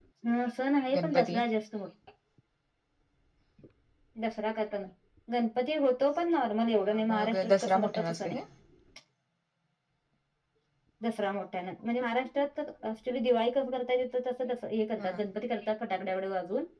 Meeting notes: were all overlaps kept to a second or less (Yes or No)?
No